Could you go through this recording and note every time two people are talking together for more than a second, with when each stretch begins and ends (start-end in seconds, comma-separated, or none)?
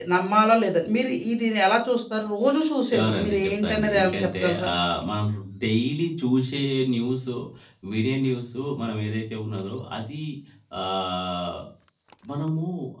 2.9-4.7